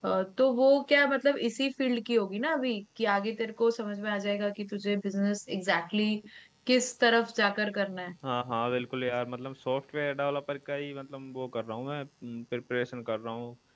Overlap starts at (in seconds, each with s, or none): none